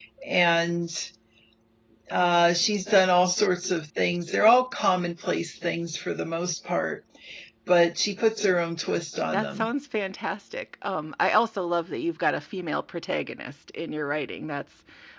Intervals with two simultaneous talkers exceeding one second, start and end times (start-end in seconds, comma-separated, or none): none